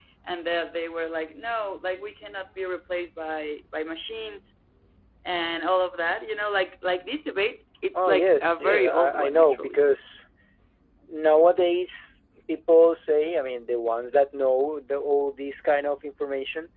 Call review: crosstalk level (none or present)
present